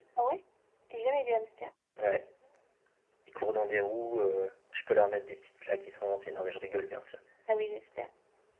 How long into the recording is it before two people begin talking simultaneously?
none

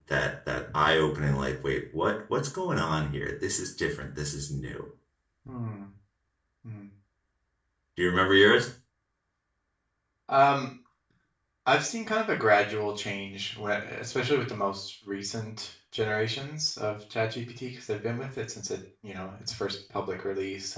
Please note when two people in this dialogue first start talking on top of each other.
none

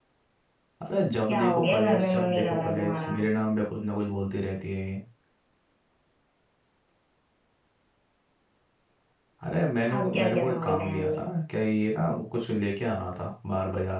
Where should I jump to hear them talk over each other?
1.3 s

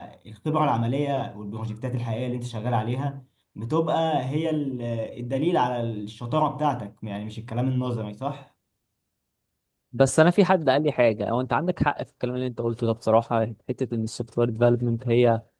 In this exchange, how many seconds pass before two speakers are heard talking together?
none

